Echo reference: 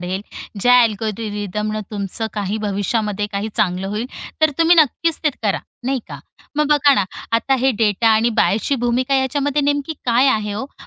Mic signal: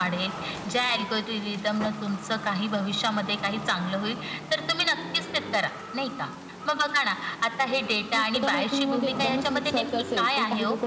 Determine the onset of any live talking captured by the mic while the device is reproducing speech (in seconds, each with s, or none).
8.1 s